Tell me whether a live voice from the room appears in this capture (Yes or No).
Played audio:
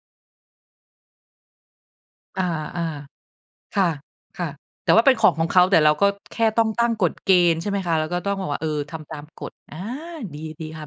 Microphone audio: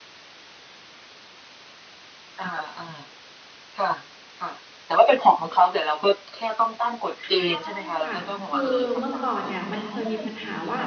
Yes